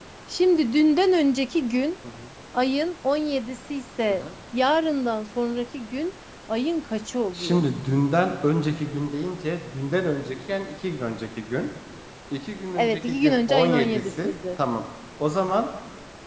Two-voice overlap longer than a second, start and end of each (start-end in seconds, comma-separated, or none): 12.8-14.6